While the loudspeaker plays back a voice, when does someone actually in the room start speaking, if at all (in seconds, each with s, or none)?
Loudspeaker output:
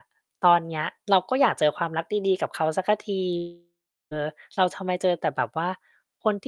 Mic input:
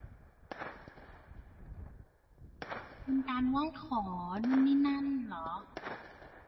3.0 s